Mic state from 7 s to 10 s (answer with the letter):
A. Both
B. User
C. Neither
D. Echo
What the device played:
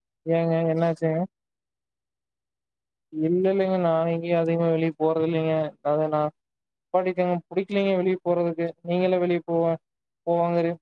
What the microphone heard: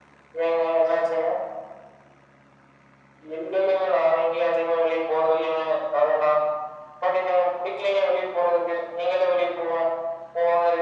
D